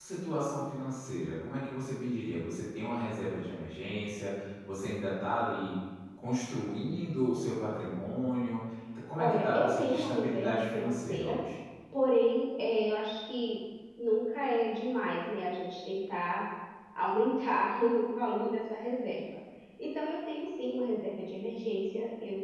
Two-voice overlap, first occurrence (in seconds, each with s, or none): 9.2 s